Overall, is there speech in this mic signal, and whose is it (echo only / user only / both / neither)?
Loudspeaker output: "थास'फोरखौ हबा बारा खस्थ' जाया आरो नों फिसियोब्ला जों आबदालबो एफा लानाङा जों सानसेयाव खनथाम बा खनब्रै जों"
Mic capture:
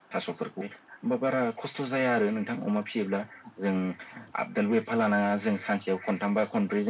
echo only